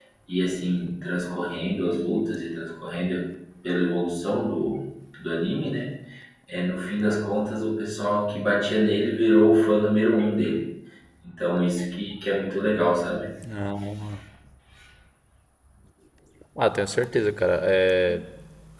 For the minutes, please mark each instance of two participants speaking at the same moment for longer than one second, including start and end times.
none

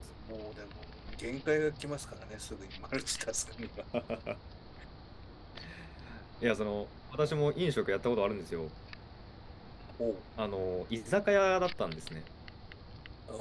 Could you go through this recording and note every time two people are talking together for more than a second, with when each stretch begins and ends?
none

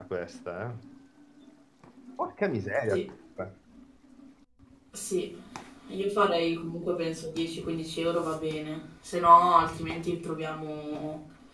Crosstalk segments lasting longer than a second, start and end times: none

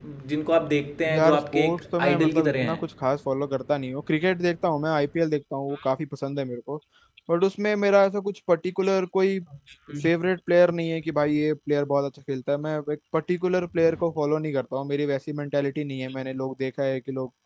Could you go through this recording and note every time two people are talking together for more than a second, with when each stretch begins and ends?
1.1-2.8

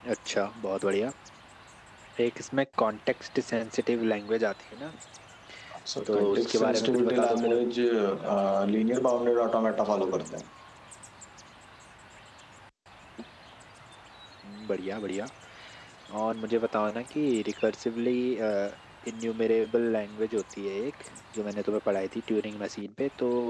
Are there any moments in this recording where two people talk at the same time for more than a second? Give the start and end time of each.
6.1-7.7

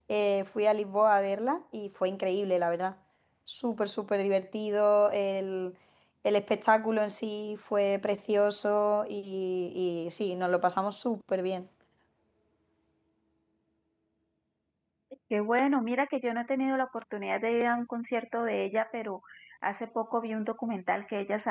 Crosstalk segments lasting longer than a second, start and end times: none

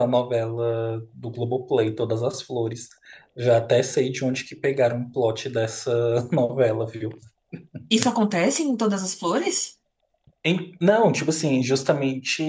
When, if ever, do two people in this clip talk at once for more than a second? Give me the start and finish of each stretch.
none

